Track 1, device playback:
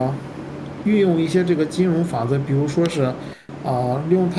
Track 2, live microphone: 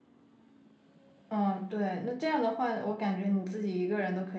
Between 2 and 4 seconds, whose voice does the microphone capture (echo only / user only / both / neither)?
user only